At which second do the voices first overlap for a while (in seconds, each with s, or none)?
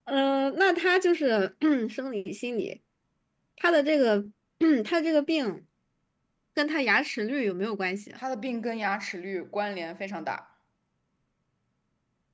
none